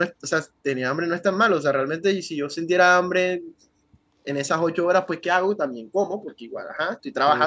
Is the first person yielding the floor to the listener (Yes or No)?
No